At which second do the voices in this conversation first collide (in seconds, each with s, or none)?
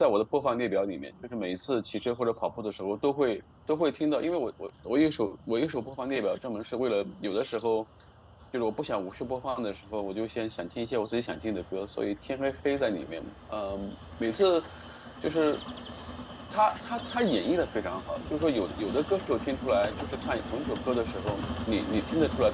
none